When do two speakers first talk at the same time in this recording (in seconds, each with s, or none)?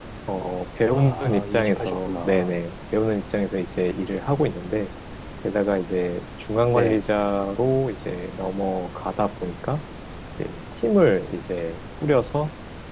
0.9 s